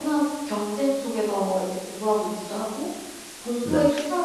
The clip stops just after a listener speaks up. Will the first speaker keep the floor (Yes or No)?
Yes